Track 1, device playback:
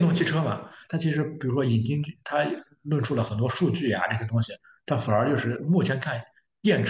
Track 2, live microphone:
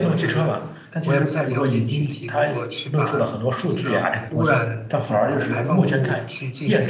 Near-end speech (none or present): present